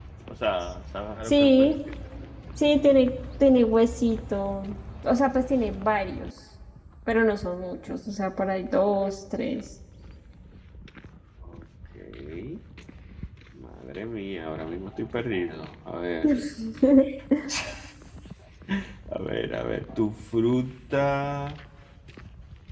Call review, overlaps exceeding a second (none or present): none